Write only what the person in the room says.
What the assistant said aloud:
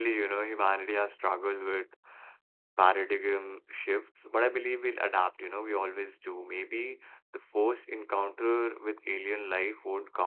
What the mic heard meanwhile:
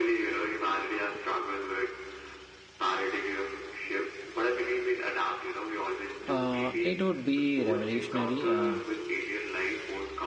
Uh, it would be revolutionary, uh,

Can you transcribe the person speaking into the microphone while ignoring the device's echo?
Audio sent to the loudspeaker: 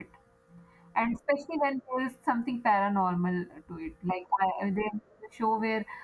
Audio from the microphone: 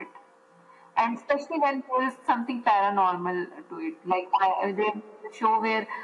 none

